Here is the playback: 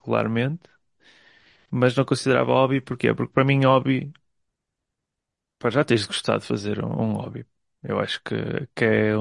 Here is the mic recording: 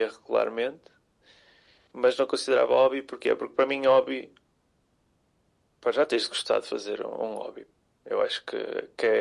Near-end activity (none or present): none